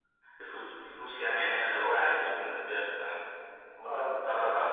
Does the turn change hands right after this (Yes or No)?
Yes